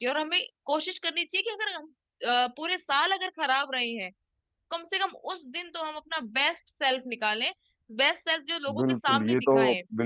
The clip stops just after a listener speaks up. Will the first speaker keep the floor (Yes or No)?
No